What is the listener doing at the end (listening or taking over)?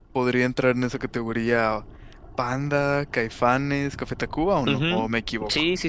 taking over